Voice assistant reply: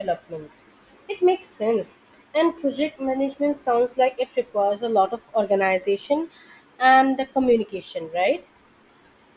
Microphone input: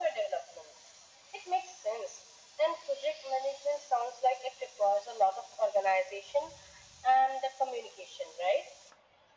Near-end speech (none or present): none